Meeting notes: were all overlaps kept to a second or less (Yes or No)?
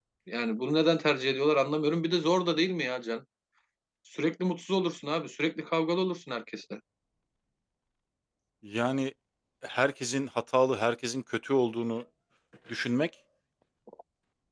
Yes